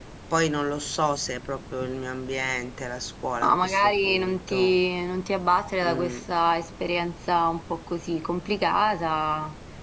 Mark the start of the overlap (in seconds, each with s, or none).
3.4 s